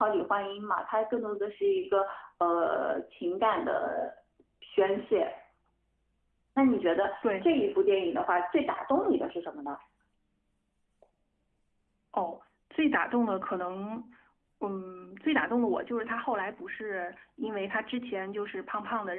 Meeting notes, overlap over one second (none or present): none